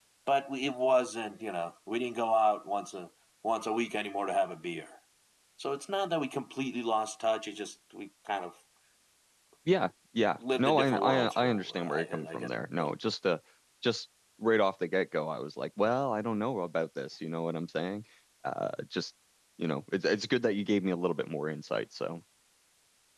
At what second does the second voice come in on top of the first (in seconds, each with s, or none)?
10.4 s